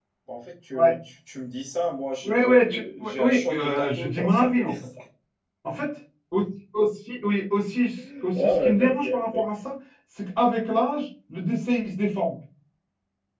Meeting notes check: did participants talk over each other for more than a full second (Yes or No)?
Yes